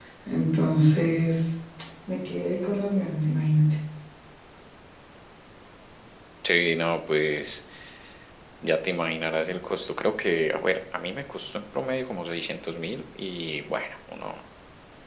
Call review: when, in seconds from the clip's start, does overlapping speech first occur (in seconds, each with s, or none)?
none